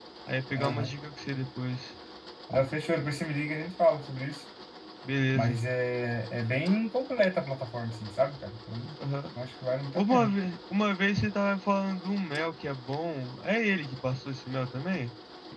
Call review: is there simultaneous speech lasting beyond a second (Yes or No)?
No